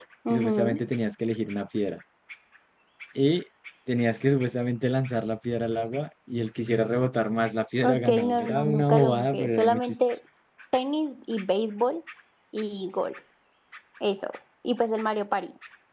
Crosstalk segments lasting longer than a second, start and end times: 7.8-10.0

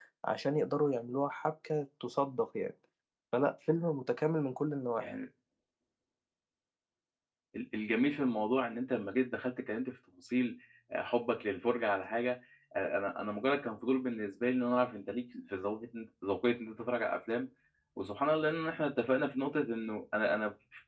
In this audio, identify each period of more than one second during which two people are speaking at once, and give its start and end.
none

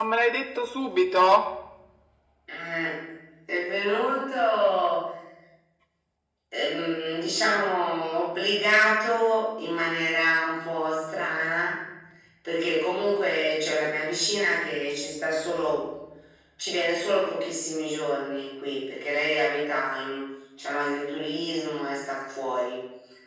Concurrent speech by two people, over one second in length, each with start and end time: none

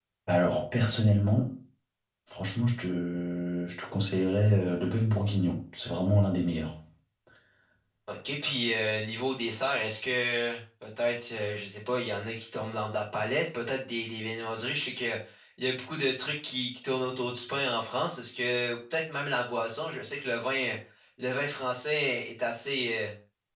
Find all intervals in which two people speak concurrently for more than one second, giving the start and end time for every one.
none

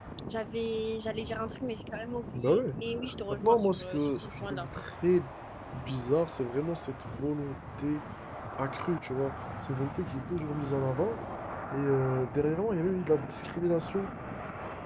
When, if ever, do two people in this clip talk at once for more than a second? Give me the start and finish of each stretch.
3.3-4.7

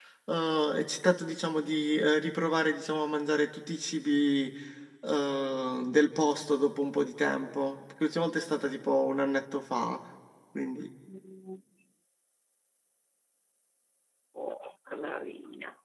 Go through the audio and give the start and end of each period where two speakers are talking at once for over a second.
none

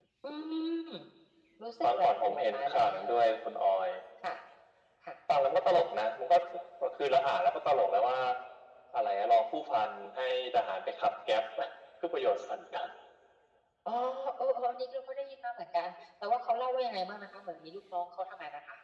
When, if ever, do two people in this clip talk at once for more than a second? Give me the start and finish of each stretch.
1.8-3.1

